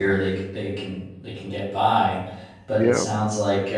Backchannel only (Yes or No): Yes